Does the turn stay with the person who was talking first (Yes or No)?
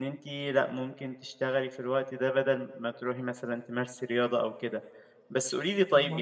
Yes